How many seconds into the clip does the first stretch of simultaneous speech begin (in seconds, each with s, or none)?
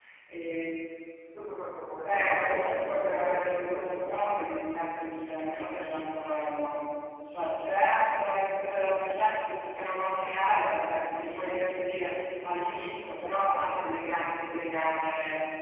1.9 s